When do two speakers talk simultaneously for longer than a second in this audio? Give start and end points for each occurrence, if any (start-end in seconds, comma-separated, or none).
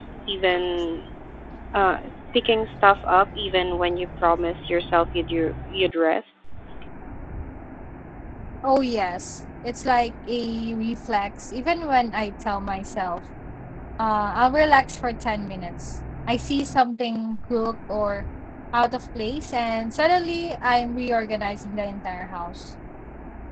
none